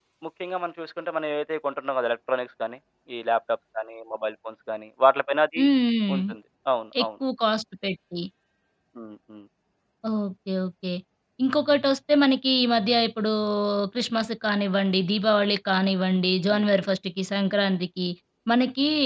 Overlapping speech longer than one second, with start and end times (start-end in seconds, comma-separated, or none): none